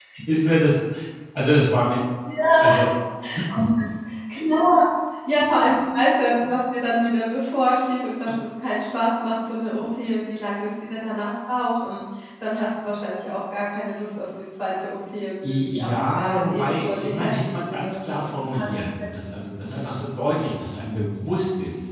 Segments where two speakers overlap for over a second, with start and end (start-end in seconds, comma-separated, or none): 15.5-19.1